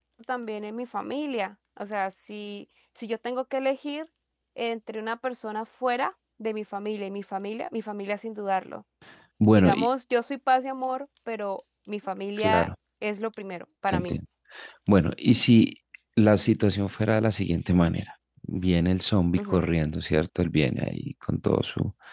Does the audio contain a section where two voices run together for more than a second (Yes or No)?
No